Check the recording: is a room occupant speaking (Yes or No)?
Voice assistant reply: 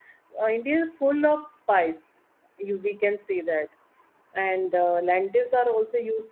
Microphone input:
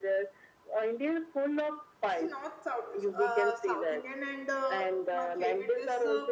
Yes